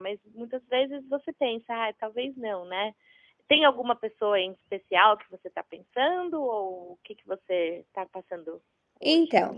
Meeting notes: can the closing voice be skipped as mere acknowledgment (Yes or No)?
No